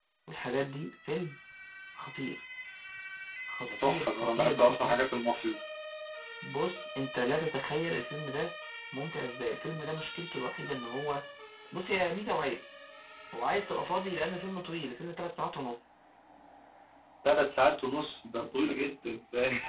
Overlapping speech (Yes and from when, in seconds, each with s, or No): Yes, from 3.7 s